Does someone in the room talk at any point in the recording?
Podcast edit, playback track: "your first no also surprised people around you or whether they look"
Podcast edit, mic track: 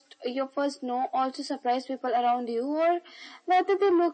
No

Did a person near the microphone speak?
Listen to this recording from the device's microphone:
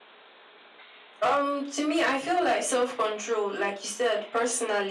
No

